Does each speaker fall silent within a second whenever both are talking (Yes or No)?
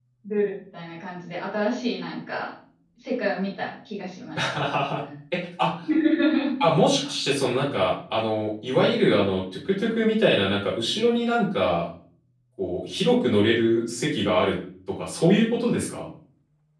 Yes